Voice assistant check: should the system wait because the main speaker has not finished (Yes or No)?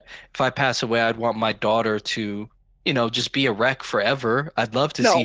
Yes